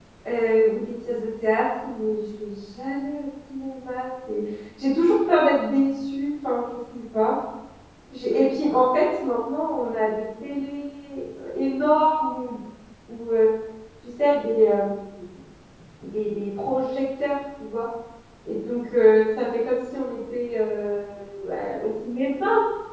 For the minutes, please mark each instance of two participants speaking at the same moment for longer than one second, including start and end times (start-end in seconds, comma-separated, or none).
none